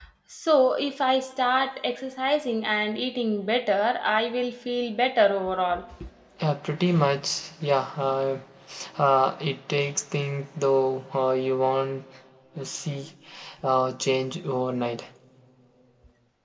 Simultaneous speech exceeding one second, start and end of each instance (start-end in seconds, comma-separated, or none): none